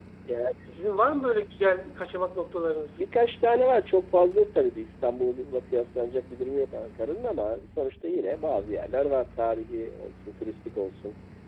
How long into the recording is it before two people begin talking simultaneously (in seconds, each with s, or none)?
none